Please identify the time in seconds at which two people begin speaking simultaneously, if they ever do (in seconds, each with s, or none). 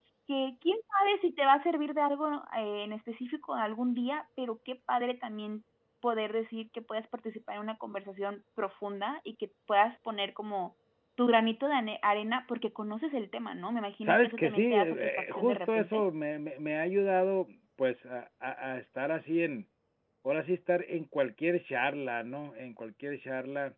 14.0 s